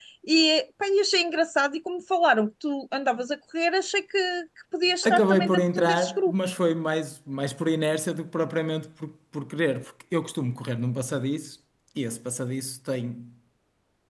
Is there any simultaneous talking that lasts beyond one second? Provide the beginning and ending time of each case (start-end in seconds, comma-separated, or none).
5.0-6.5